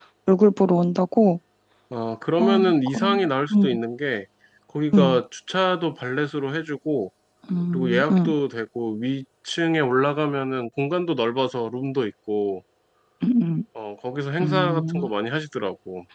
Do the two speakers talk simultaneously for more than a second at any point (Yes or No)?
Yes